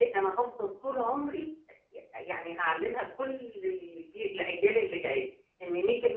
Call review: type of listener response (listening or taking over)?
taking over